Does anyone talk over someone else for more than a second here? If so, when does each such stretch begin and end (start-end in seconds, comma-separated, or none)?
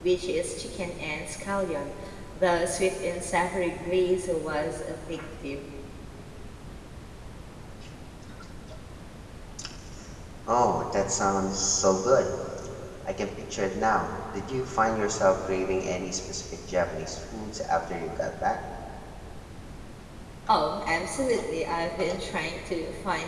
none